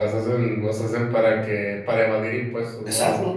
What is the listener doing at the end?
taking over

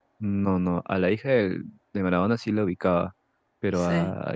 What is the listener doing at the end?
listening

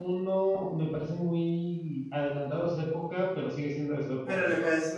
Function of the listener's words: taking over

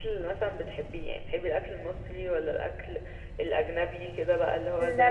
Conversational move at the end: taking over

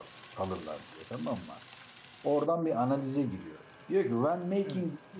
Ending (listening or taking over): listening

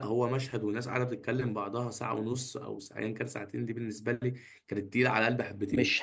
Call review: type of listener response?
taking over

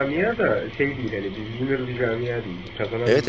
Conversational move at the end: taking over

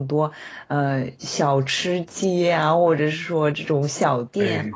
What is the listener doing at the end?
taking over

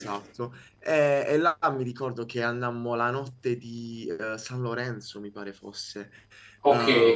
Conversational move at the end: listening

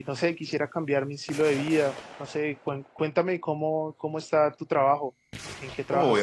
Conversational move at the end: taking over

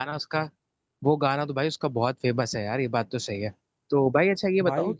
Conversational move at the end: listening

